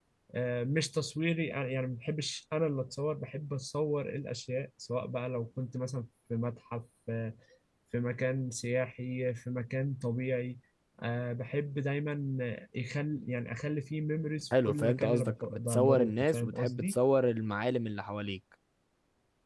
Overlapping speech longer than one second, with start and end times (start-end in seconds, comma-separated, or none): 14.7-17.0